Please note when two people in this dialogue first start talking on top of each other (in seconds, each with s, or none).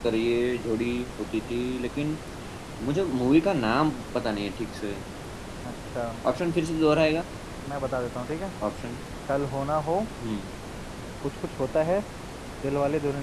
none